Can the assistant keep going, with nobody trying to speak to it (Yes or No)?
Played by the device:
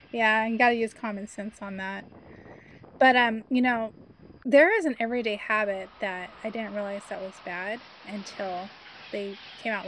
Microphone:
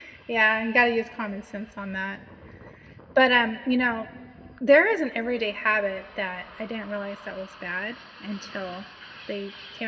Yes